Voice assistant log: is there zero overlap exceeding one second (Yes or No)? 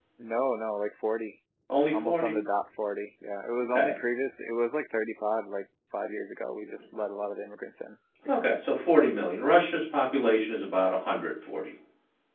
Yes